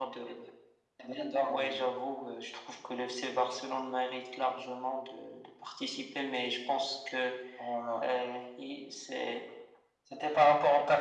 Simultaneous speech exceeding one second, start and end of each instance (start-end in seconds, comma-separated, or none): none